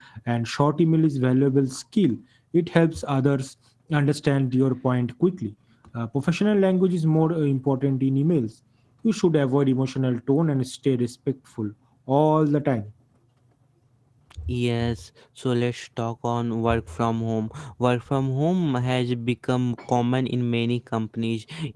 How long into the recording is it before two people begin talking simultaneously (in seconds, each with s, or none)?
none